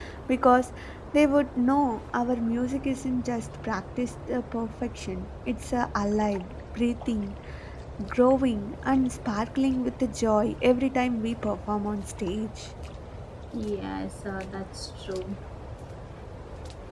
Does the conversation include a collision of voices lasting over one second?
No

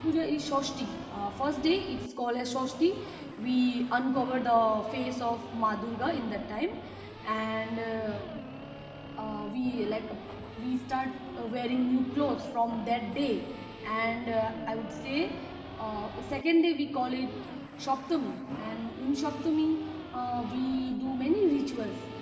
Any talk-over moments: No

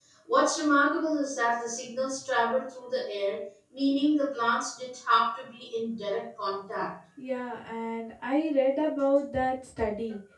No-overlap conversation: Yes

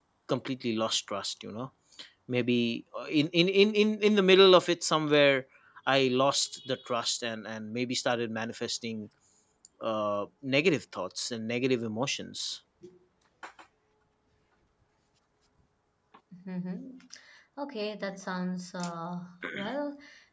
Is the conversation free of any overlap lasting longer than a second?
Yes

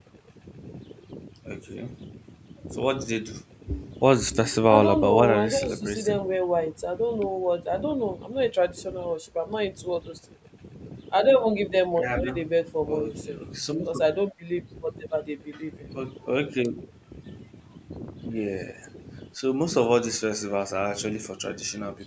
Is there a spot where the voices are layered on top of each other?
Yes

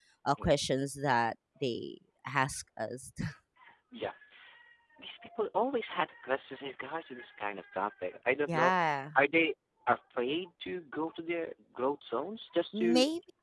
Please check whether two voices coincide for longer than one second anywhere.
No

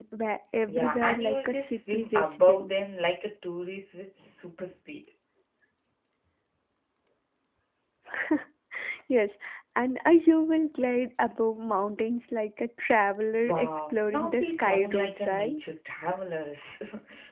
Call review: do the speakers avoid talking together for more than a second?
No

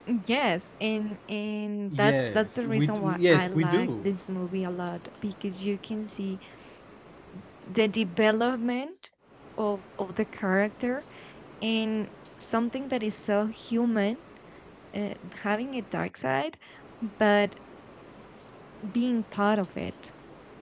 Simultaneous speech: Yes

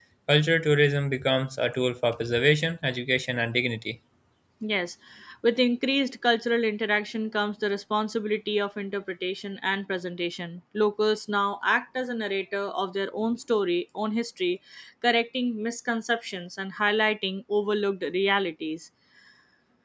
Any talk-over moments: No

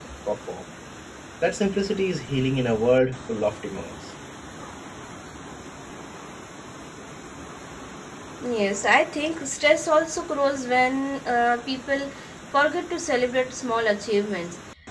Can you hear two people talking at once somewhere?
No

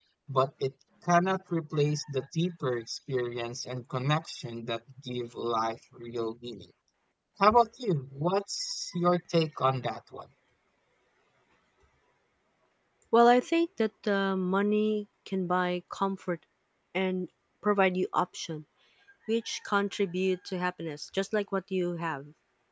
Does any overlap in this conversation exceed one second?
No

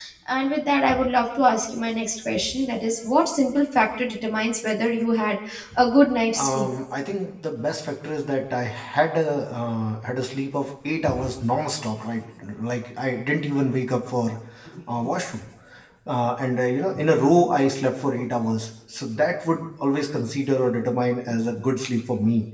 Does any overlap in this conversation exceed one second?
No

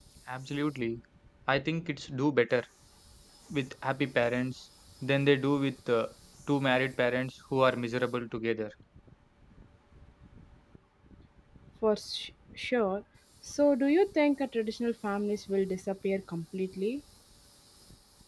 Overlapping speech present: No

